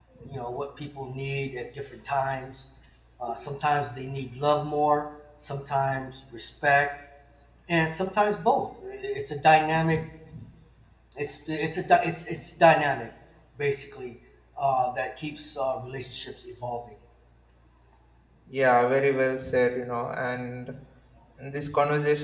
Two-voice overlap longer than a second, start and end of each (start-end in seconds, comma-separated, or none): none